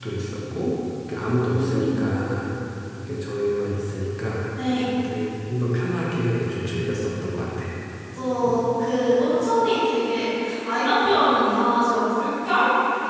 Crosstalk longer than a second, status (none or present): none